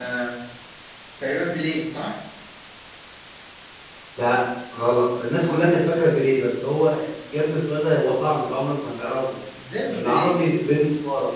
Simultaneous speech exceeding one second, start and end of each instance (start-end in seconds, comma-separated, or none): none